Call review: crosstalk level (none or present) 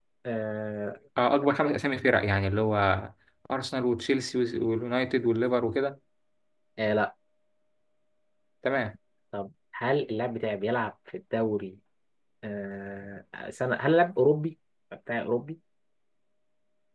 none